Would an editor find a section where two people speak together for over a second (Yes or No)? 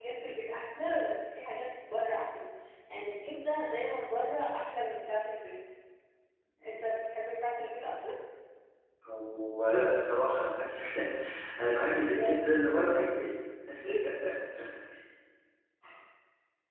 No